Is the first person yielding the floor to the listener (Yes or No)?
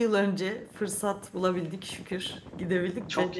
No